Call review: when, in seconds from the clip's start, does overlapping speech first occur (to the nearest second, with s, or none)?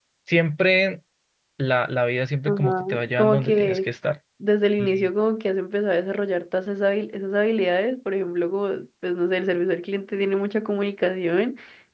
2 s